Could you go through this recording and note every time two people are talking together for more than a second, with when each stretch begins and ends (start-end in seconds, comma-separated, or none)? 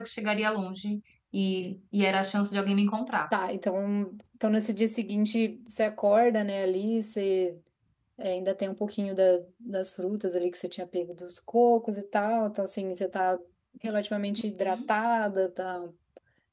none